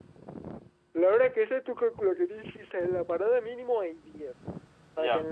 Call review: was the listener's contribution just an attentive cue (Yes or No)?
Yes